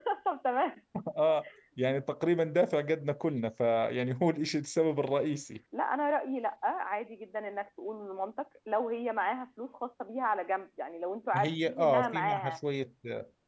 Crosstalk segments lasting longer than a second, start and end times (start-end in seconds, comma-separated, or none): 11.4-12.6